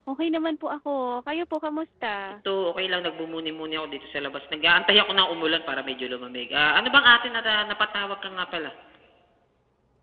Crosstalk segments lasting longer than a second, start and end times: none

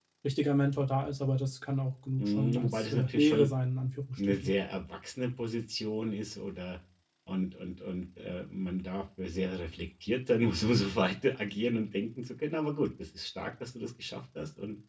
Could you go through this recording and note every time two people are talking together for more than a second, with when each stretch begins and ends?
2.2-3.5

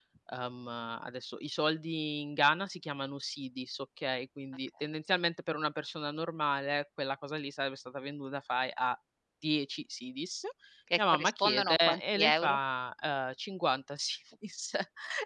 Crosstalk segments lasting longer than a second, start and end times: 11.0-12.6

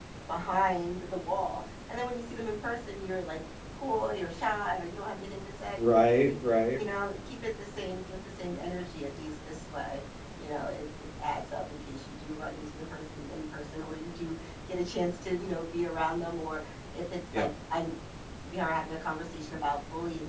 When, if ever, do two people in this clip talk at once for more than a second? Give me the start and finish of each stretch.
none

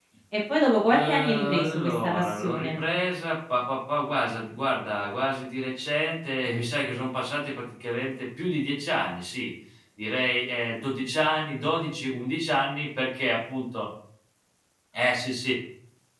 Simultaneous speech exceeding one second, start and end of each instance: 0.9-2.8

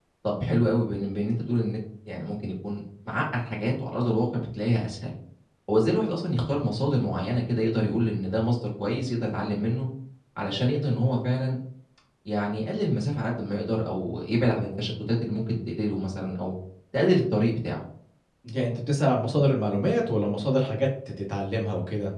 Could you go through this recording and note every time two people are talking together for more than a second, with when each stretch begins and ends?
none

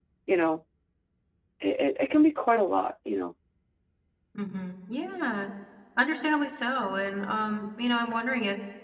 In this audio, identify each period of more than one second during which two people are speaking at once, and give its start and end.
none

